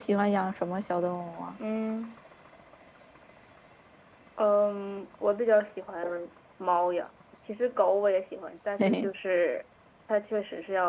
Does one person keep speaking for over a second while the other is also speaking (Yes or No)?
No